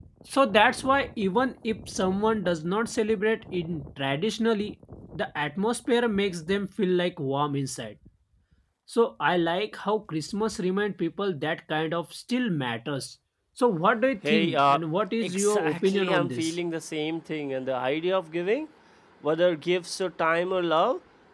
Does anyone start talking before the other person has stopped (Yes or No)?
Yes